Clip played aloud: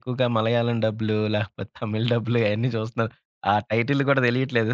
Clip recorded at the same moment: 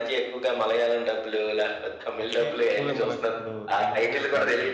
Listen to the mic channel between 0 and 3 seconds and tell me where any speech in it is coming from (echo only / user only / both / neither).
both